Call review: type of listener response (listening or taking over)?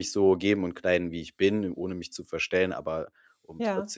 listening